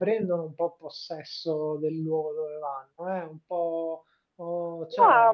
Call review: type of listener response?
listening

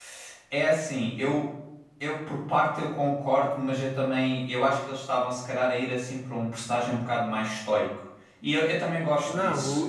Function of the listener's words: taking over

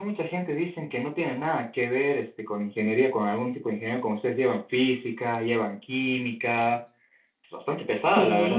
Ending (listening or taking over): taking over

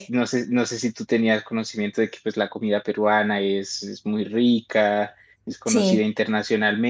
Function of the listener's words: listening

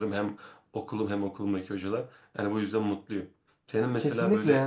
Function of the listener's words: listening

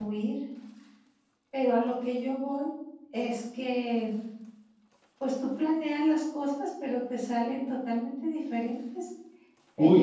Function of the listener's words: listening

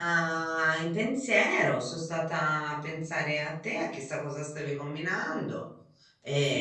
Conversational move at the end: taking over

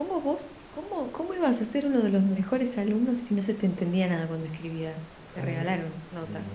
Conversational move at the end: taking over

